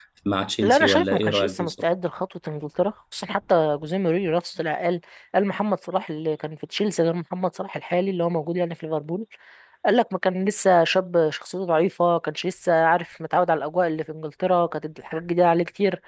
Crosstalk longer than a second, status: present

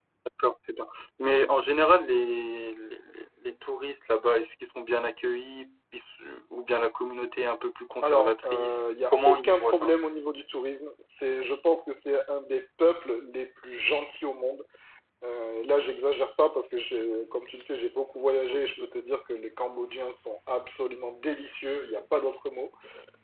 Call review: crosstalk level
present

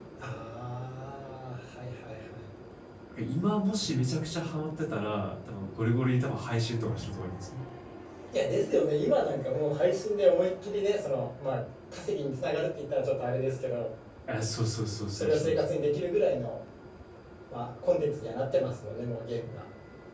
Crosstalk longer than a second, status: none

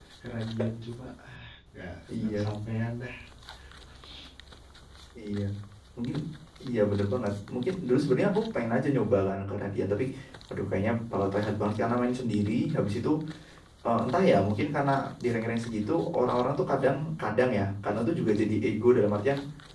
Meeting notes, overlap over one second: none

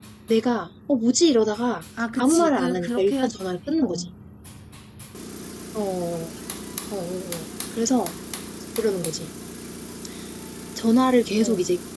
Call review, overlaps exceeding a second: present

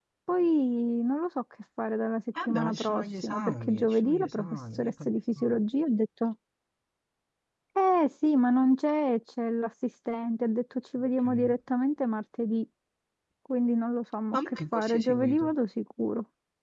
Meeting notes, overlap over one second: present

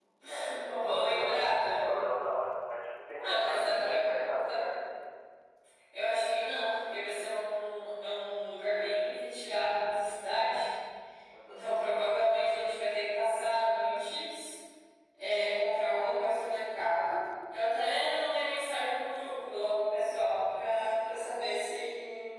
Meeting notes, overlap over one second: present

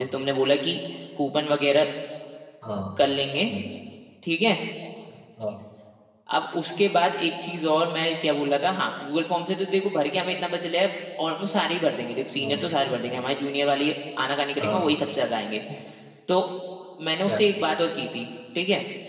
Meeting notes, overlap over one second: none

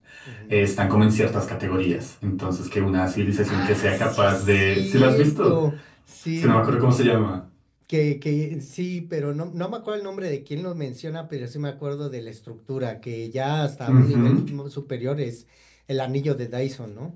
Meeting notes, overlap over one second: present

